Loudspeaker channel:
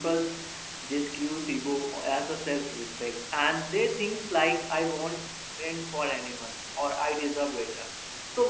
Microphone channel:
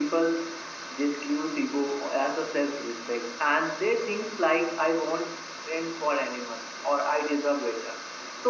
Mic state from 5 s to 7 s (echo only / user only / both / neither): echo only